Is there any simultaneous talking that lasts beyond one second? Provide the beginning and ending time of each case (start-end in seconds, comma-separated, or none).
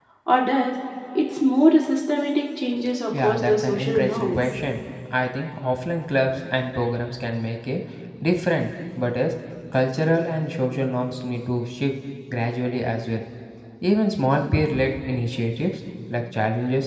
3.2-4.4